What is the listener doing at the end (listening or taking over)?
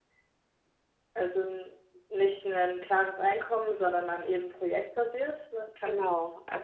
taking over